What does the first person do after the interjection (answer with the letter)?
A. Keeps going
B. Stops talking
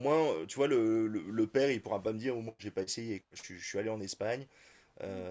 A